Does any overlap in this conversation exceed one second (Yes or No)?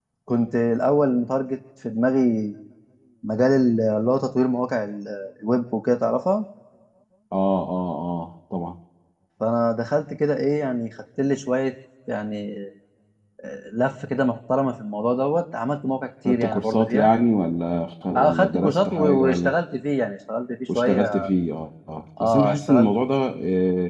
Yes